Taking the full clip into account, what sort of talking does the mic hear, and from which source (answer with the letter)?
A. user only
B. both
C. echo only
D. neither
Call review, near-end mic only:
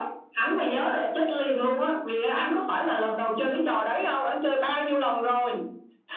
C